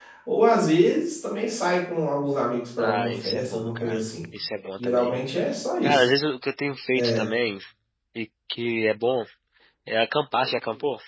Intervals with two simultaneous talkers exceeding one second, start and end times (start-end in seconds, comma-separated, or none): 2.8-4.0